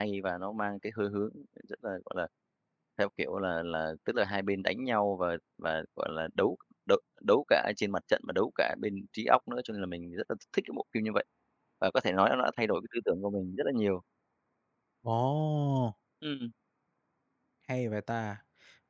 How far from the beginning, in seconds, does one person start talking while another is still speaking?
none

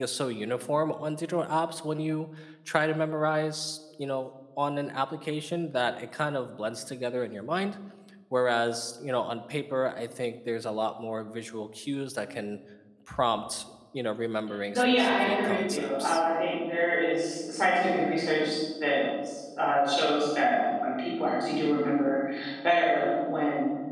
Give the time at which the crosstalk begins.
14.7 s

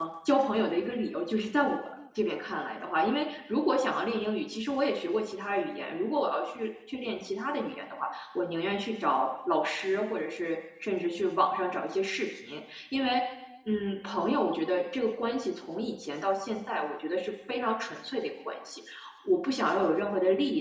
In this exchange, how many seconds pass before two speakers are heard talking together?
none

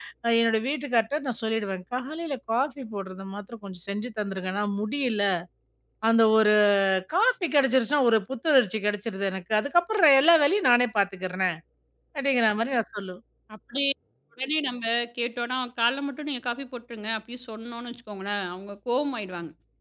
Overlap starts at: none

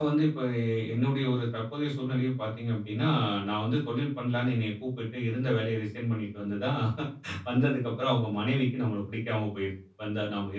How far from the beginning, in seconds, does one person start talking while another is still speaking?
none

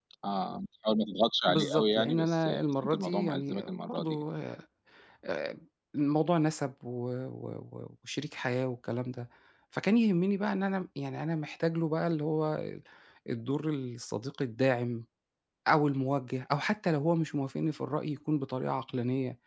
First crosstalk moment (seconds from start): 1.5 s

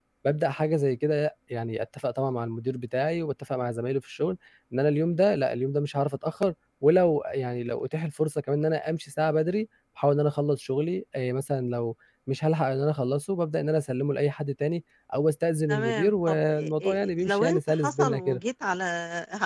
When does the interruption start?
15.7 s

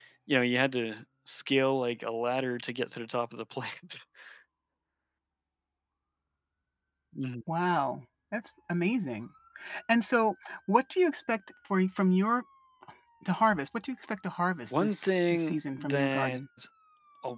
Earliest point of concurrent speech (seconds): 14.7 s

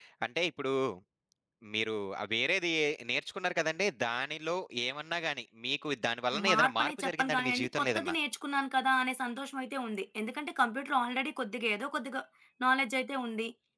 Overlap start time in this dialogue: 6.3 s

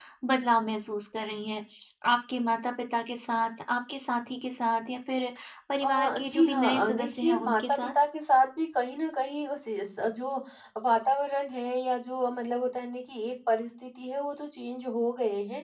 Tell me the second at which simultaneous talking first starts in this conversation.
5.8 s

